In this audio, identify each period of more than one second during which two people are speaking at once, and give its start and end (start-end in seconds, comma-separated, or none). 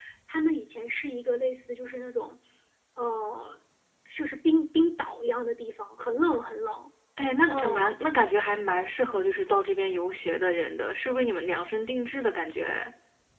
none